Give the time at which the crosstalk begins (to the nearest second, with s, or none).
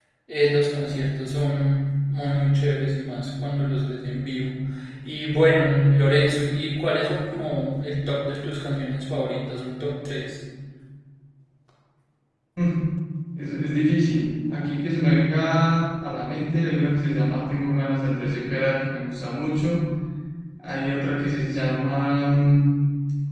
none